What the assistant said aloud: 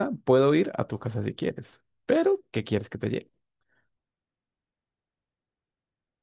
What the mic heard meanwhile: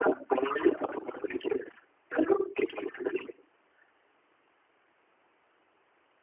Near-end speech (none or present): none